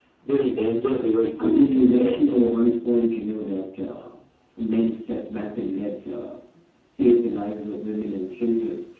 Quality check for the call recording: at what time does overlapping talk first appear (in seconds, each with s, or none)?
1.4 s